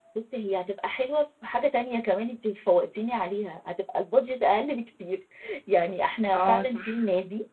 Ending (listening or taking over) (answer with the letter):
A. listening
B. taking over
A